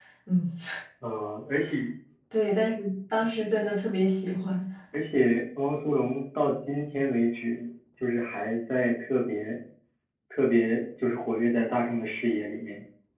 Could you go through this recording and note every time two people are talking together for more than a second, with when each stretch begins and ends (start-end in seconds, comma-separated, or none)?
none